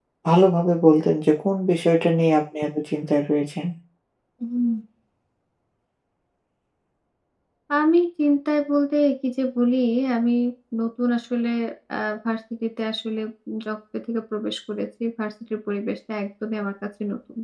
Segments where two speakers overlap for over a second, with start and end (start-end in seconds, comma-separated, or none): none